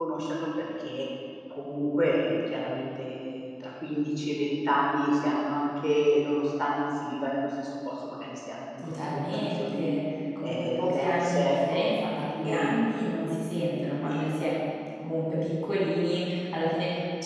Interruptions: present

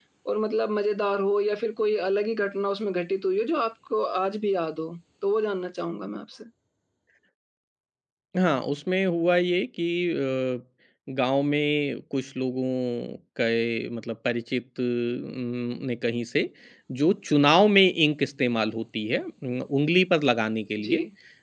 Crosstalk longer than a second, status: none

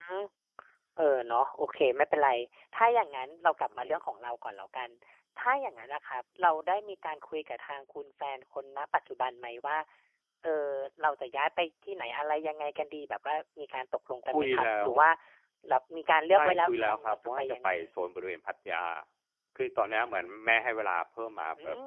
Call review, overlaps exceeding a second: present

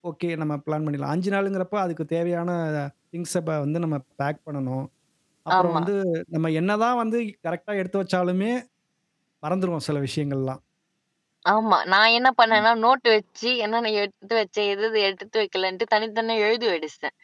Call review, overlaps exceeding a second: none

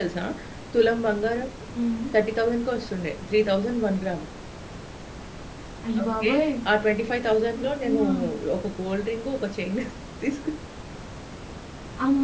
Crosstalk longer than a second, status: none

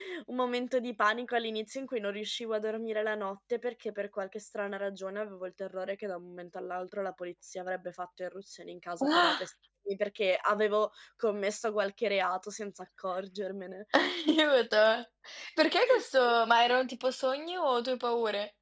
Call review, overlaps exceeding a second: none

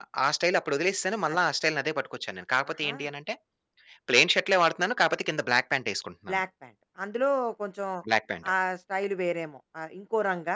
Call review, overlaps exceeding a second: none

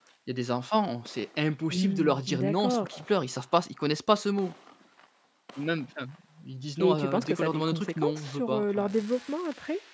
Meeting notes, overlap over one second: present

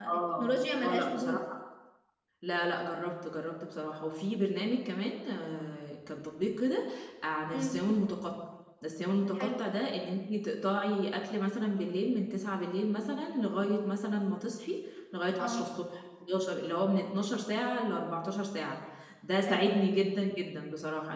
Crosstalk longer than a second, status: none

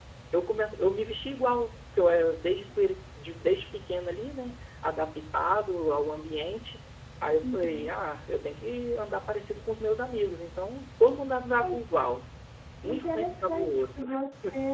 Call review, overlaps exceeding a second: present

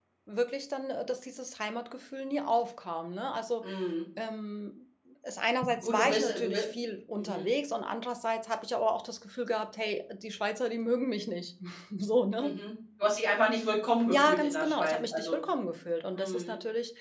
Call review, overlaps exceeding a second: present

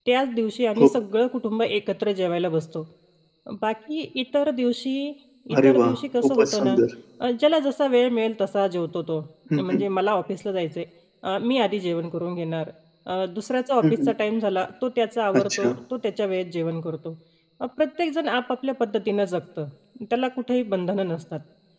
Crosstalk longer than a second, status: present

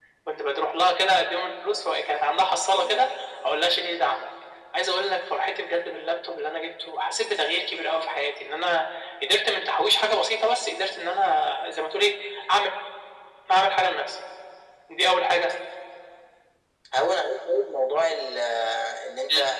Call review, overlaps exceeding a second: none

